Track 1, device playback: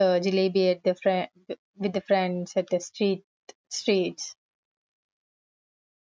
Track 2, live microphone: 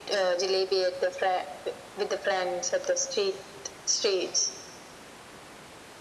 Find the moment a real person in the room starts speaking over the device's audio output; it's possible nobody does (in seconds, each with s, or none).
none